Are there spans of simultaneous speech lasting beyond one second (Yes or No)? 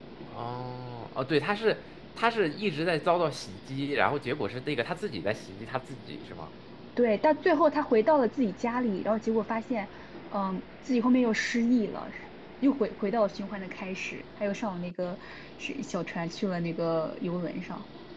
No